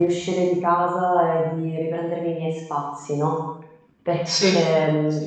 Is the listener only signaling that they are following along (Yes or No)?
Yes